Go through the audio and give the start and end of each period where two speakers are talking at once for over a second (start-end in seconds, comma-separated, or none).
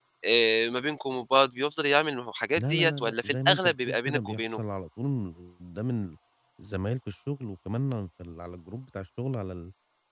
2.6-4.6